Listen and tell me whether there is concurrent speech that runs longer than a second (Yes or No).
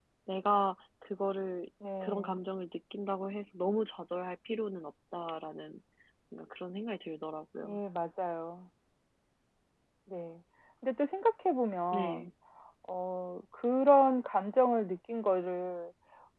No